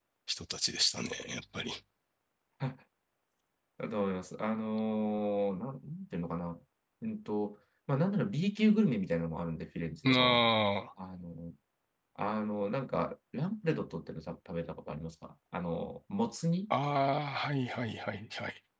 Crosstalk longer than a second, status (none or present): none